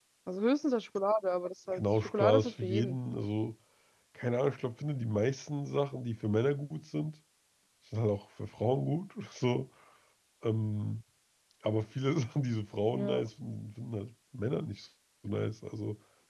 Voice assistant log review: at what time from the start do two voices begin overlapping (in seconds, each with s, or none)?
1.7 s